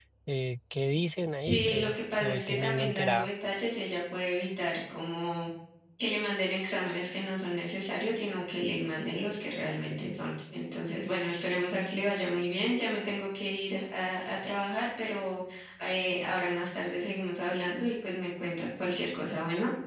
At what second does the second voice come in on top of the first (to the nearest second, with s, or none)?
1 s